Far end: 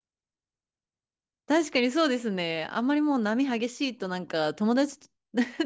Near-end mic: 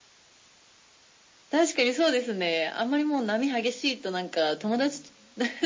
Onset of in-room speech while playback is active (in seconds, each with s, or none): none